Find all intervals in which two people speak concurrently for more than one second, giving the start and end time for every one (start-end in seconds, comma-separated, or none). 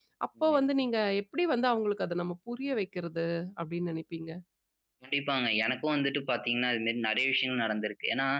none